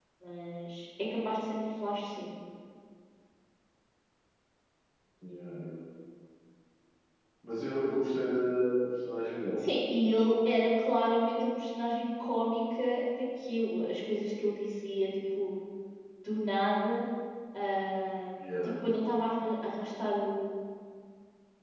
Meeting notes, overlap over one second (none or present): none